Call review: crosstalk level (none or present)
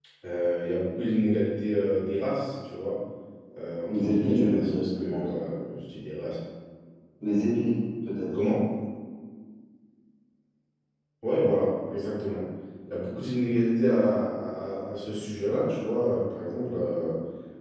present